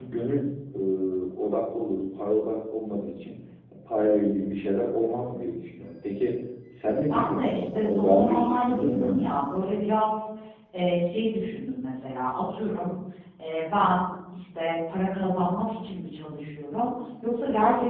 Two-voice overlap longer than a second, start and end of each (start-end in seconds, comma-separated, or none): 7.1-9.2